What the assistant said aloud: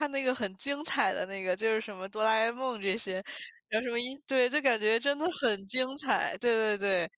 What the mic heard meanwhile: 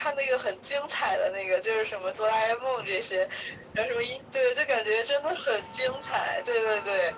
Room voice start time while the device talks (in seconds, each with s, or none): none